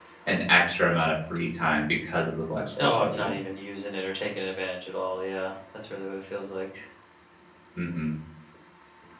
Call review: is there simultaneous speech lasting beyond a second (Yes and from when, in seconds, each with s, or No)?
No